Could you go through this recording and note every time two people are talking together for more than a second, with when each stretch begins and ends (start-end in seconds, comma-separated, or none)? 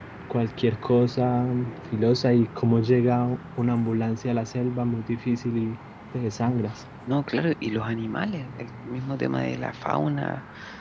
none